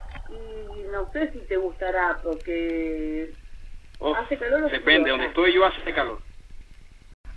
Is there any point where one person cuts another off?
Yes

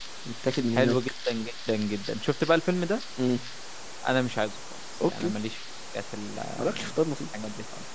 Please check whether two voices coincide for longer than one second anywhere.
No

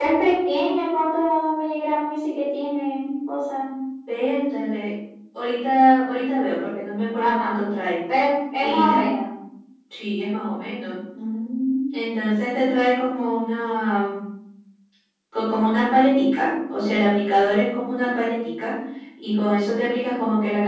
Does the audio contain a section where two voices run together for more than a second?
No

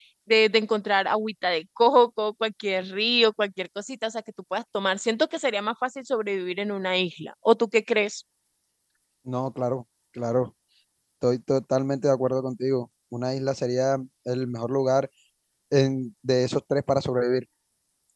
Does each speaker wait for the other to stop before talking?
Yes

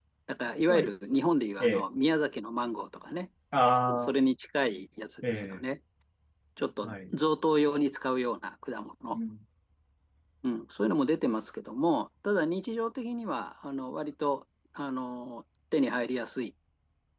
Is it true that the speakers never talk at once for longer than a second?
Yes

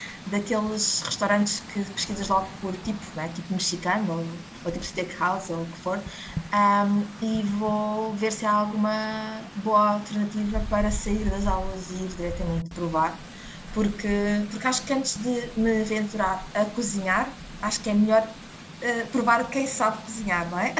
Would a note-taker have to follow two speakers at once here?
No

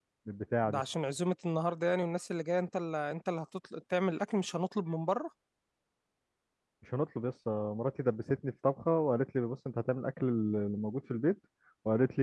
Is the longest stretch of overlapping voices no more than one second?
Yes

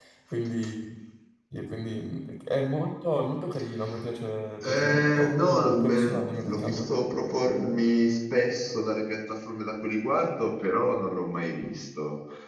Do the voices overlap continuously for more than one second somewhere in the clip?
Yes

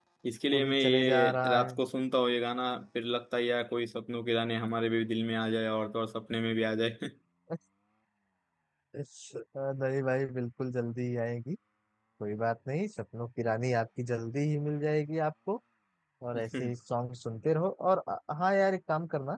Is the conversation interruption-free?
No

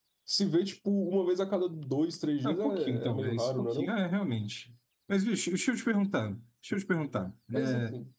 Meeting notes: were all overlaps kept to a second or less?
No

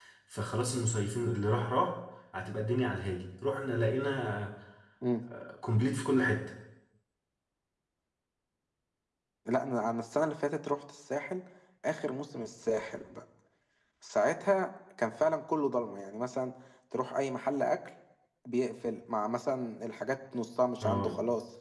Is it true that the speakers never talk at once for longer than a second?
Yes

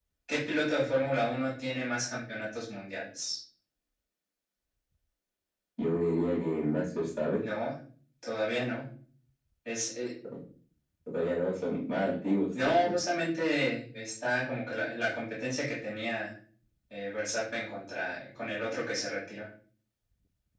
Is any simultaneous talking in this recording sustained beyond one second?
No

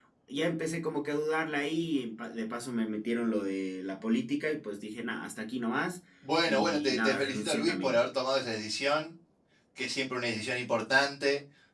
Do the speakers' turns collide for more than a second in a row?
Yes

